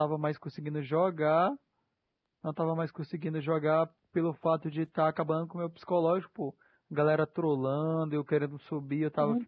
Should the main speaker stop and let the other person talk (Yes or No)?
Yes